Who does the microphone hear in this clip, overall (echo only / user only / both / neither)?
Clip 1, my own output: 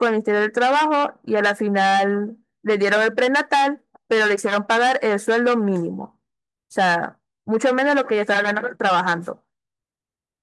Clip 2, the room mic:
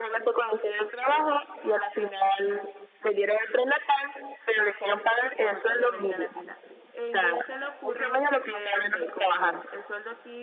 both